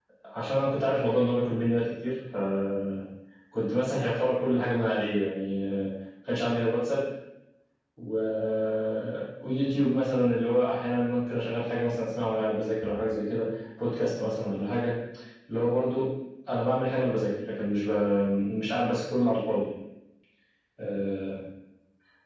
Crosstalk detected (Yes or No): No